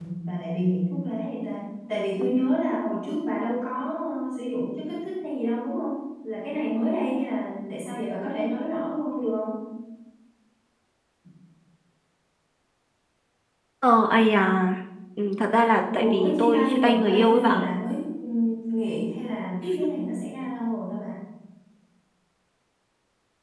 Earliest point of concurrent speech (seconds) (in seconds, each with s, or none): 15.9 s